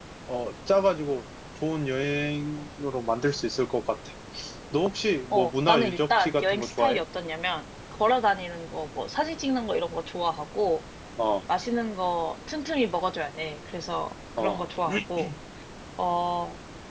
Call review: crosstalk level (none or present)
present